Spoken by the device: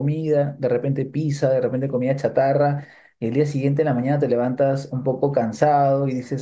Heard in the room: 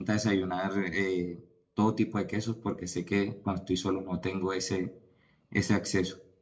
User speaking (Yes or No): Yes